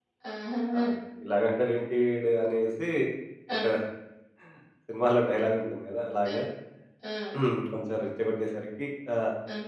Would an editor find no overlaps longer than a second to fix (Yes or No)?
Yes